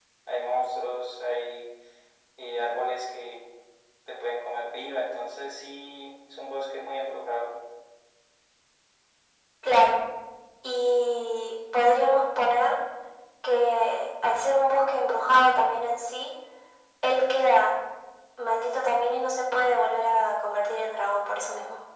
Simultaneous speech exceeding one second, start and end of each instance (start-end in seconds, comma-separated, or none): none